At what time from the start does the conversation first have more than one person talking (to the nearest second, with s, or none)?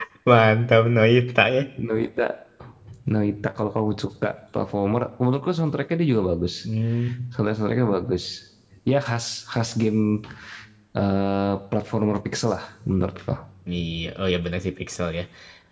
none